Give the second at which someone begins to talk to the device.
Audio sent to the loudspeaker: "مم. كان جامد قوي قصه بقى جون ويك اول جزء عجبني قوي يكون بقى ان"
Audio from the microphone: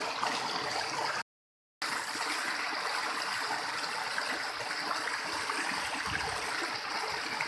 none

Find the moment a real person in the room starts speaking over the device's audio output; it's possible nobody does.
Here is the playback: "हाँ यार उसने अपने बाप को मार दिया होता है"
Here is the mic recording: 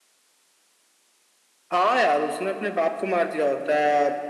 none

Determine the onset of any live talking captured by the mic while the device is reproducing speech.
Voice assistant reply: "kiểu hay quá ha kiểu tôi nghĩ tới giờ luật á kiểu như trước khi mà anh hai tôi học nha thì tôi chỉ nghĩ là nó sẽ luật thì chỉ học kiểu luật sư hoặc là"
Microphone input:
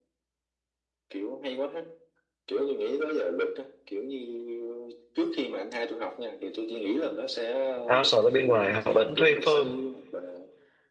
8 s

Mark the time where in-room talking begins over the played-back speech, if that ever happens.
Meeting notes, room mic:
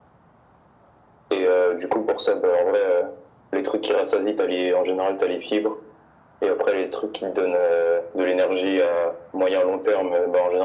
none

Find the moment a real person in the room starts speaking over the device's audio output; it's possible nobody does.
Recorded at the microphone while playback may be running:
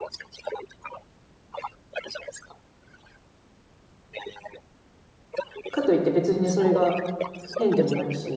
6 s

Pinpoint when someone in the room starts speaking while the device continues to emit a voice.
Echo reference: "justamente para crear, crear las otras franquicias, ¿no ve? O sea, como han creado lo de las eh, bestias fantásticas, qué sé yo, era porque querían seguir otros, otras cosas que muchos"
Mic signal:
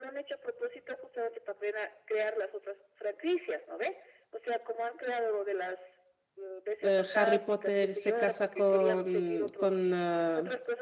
7 s

